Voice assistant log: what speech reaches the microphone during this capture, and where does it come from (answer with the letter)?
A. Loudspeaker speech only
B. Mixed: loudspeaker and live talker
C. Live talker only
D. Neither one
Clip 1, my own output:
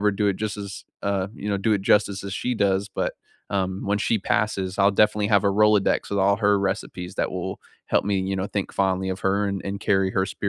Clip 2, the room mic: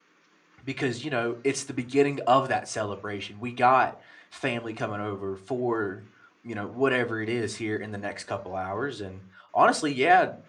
C